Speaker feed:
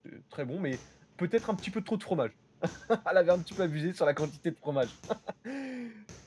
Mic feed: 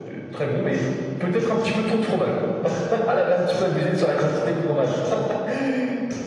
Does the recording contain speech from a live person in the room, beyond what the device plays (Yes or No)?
No